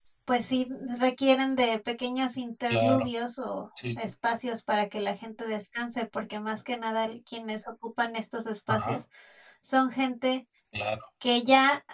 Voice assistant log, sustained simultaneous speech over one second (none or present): none